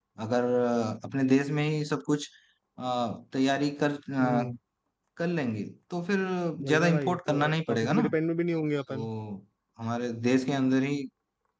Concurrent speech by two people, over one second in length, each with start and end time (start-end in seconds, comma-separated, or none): 6.7-8.1